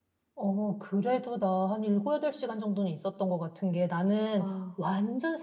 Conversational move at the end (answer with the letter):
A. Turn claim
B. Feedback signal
B